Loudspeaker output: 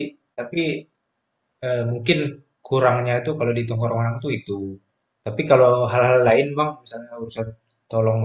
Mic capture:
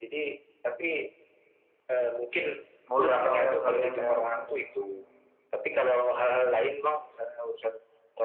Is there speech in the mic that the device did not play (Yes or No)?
Yes